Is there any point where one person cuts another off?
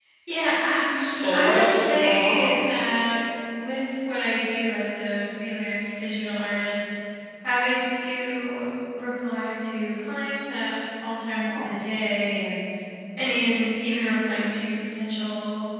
Yes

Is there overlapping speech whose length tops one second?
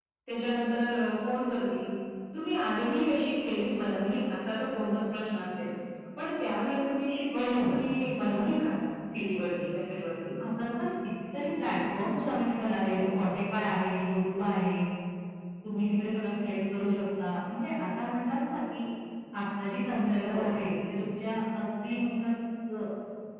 No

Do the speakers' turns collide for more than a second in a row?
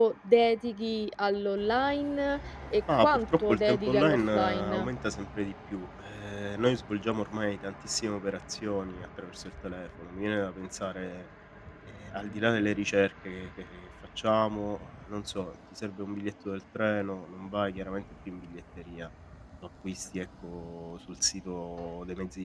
Yes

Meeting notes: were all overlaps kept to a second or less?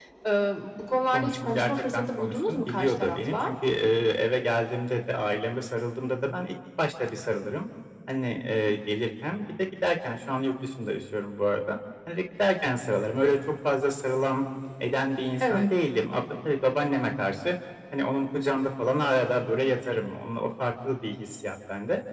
No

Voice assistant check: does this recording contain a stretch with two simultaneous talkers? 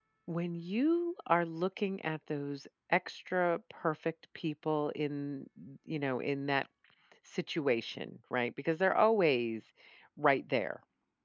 No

